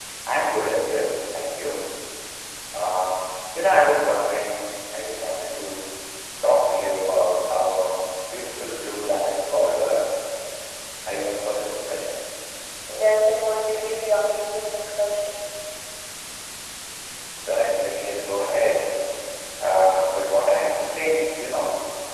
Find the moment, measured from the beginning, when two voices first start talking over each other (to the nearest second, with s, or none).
none